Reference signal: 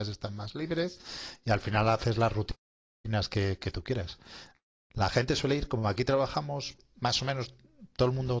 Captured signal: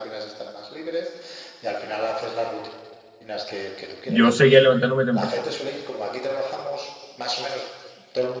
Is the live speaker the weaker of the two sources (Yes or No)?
No